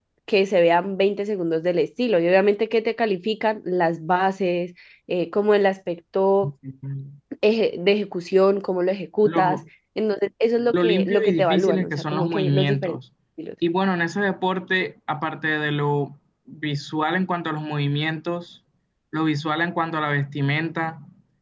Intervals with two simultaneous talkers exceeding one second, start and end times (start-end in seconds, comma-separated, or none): 10.7-13.0